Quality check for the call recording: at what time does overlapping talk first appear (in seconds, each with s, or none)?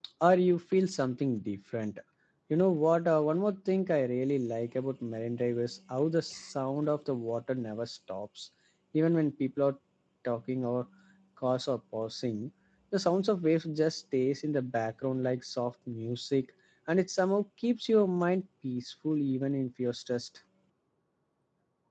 none